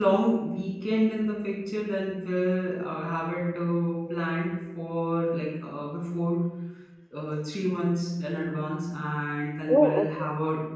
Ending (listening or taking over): listening